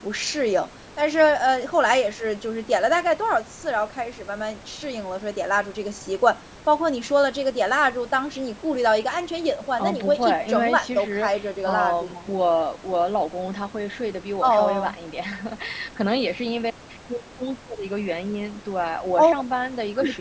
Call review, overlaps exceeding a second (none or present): present